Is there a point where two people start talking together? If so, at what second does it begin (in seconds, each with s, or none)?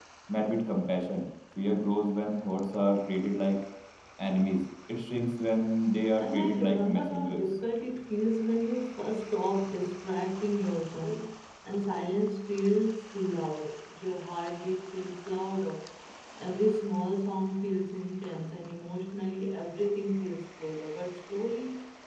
6.1 s